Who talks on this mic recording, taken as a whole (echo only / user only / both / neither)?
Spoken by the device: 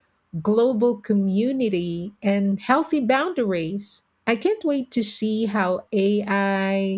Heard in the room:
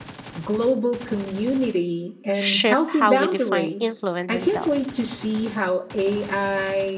both